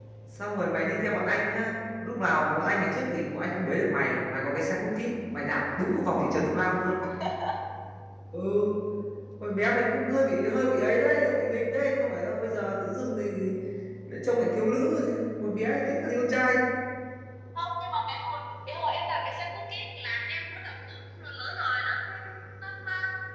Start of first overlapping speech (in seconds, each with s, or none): none